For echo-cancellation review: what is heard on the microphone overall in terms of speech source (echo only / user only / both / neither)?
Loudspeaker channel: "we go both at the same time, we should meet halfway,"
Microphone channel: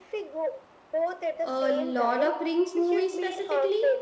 both